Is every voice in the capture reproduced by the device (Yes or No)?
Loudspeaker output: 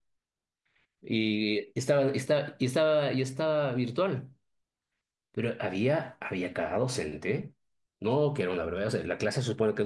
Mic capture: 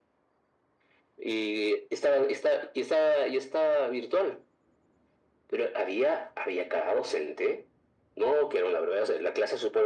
Yes